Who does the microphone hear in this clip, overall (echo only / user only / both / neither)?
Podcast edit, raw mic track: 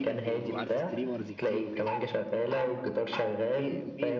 both